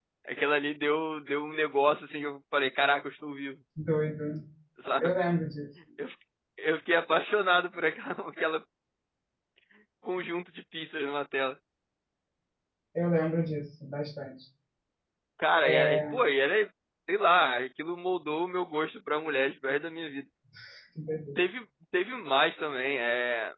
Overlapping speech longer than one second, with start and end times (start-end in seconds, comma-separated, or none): none